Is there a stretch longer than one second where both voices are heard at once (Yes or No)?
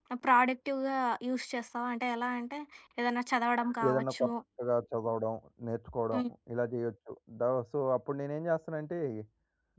No